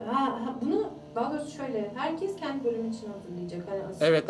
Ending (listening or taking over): taking over